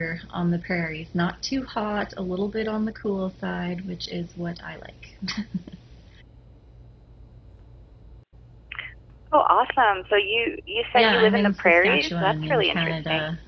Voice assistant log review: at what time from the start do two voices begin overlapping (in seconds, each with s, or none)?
11.0 s